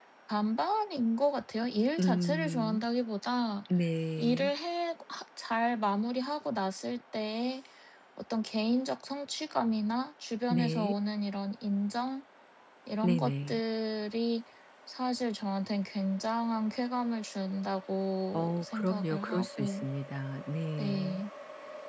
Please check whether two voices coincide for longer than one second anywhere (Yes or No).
Yes